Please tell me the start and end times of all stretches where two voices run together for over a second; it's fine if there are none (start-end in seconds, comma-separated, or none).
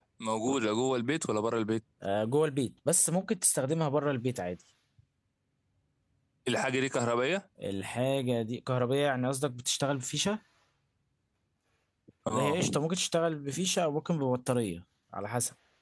none